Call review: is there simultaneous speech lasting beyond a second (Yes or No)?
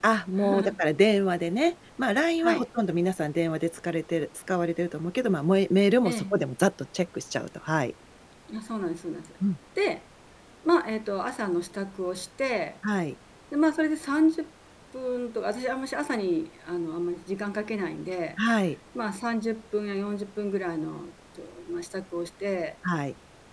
No